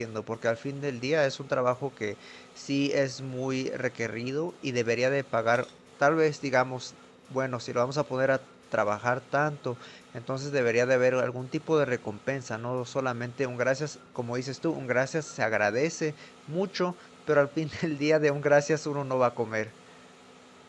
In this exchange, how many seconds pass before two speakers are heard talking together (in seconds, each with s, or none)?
none